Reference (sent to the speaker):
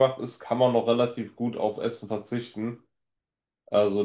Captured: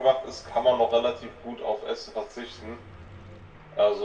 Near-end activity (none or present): none